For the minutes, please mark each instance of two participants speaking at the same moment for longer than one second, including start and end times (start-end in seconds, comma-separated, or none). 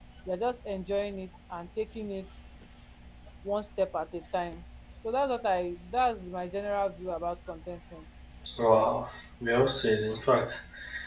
none